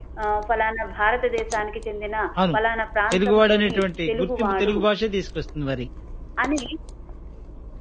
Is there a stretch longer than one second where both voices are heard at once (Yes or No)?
Yes